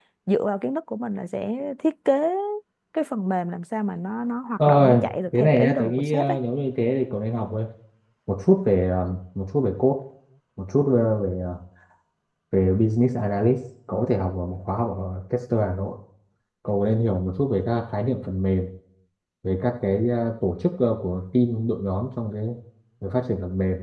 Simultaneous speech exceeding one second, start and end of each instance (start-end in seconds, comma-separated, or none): 4.7-6.4